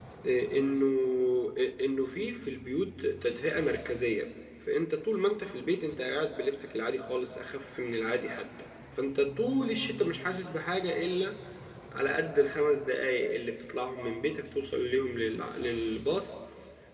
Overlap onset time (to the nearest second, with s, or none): none